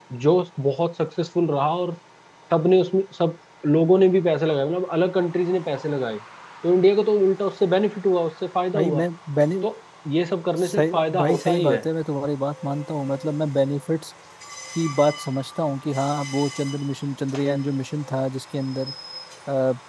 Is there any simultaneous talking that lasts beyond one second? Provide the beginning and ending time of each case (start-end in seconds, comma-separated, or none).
10.6-11.8